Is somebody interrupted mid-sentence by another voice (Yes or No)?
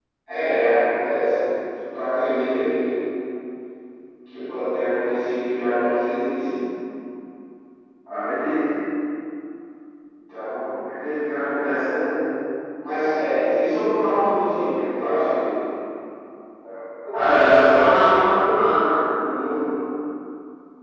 No